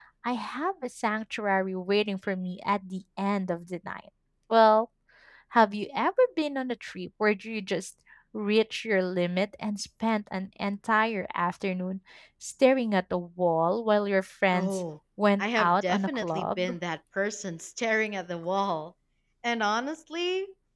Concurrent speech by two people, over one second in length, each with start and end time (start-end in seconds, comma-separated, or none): 15.4-16.7